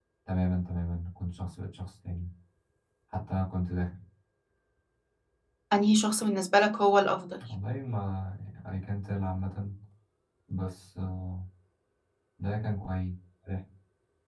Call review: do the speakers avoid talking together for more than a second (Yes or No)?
Yes